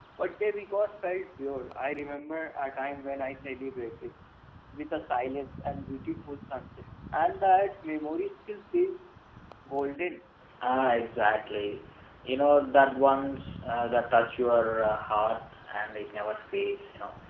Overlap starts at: none

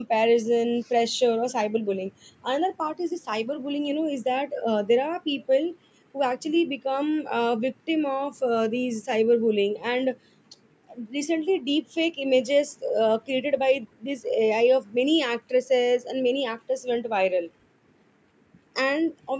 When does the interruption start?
none

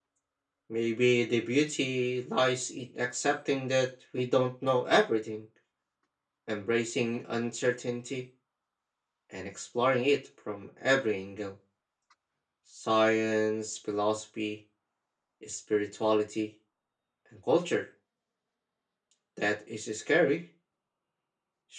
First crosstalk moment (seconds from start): none

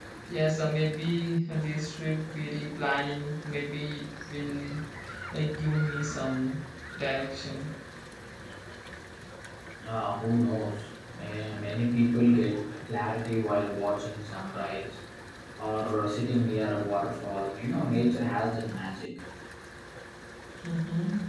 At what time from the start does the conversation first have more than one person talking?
none

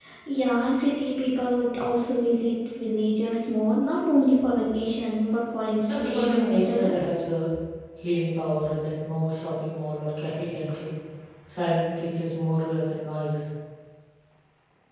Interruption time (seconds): 5.9 s

